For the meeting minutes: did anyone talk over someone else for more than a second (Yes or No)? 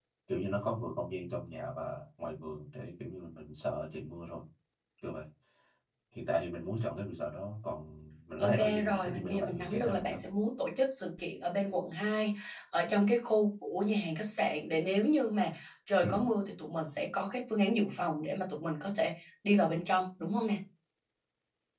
Yes